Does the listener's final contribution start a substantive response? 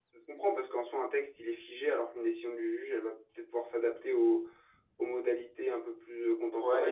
Yes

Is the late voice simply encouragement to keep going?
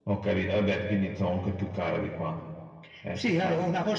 No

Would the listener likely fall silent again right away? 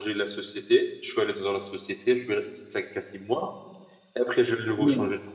Yes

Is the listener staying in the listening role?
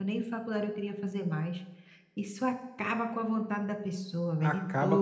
No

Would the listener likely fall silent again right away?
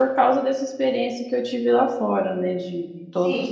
No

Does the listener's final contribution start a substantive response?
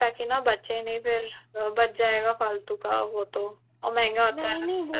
Yes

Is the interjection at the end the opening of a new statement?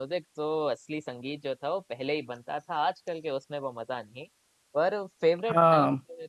No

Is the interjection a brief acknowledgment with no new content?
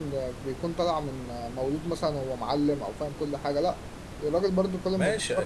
No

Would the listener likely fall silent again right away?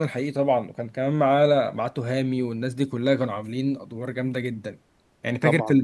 Yes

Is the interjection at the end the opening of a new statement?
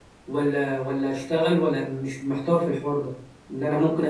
No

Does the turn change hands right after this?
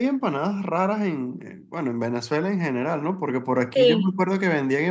No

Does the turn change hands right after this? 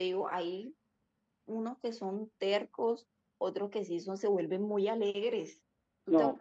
No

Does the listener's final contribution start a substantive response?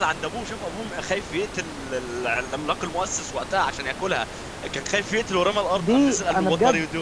Yes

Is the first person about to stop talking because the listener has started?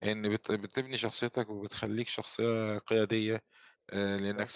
No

